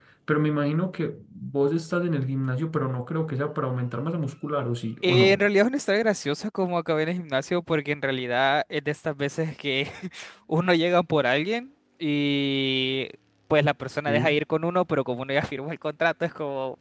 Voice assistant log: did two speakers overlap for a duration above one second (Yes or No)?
No